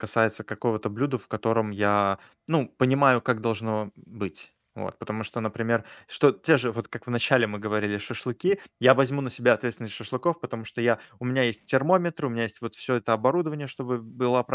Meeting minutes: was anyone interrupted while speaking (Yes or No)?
No